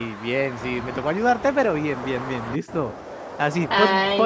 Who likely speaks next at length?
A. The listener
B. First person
B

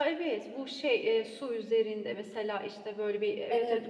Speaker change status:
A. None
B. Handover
B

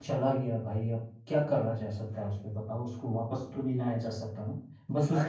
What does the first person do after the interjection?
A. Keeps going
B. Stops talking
B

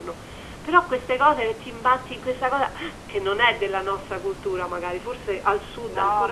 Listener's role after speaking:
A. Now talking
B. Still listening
A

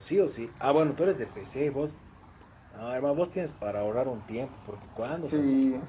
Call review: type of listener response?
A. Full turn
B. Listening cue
A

